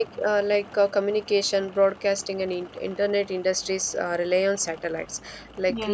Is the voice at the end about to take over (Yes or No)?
No